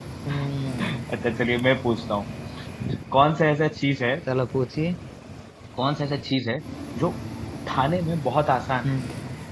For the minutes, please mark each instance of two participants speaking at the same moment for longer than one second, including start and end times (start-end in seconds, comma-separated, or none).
none